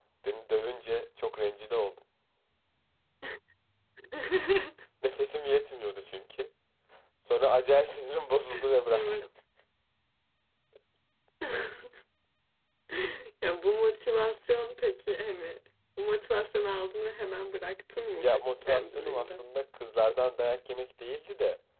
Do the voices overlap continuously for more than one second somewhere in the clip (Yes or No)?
Yes